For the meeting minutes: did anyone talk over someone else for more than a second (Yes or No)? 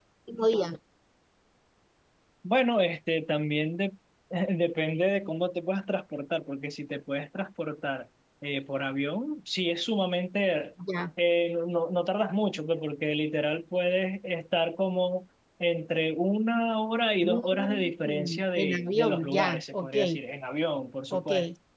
Yes